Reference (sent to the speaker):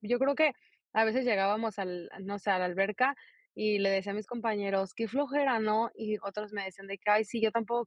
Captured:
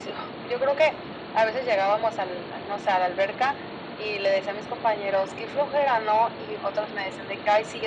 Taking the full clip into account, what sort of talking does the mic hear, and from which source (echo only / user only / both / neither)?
echo only